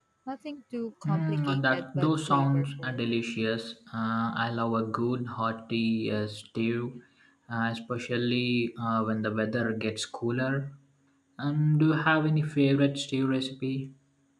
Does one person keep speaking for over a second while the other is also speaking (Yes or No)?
Yes